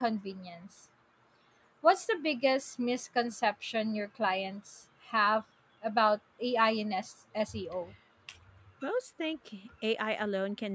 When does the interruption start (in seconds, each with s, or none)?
none